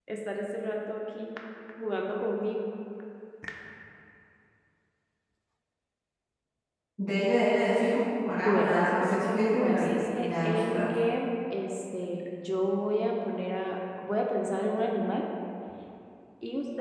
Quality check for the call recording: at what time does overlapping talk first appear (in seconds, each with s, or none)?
8.3 s